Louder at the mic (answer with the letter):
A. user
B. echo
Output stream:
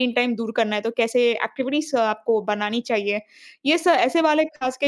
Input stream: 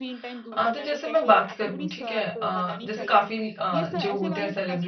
A